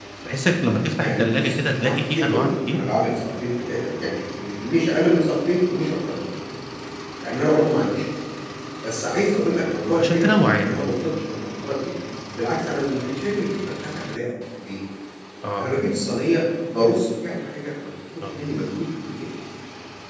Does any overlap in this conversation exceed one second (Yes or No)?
Yes